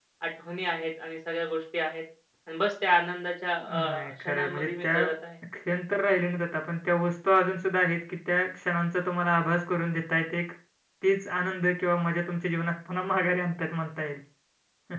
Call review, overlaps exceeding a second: present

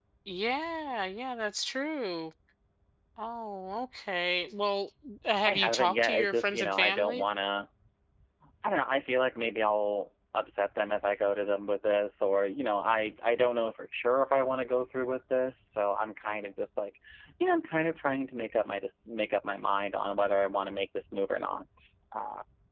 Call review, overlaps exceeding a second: present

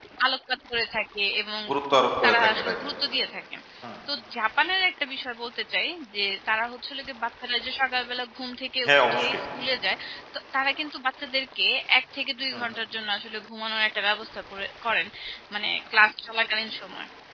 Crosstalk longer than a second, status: none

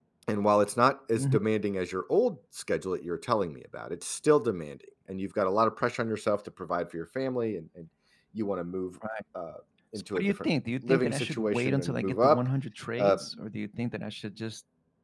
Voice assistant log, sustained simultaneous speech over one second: present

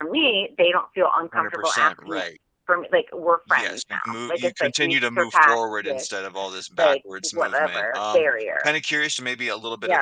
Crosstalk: present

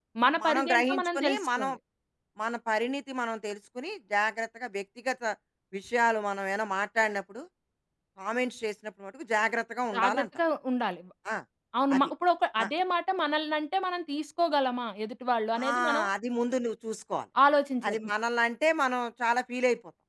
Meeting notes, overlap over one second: present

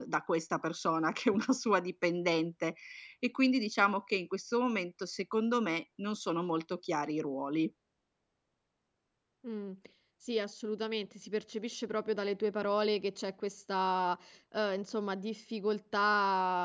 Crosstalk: none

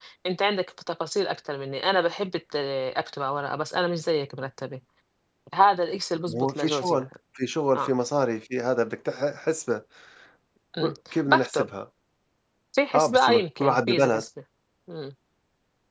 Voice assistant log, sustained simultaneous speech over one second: present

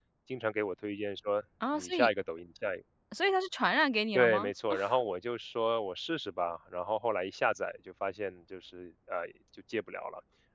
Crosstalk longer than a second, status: none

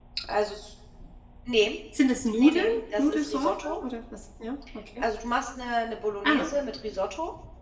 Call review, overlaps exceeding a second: present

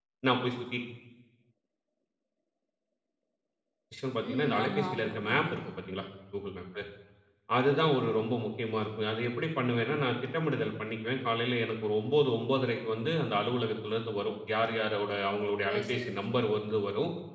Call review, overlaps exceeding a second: present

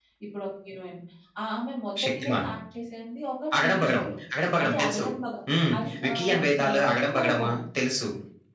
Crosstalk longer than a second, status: present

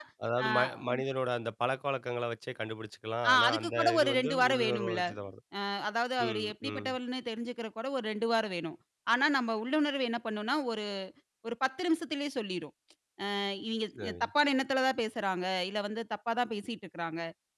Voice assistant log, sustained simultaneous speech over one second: present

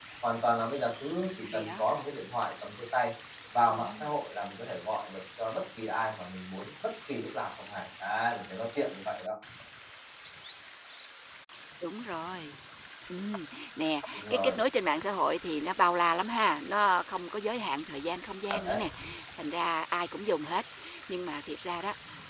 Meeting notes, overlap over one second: none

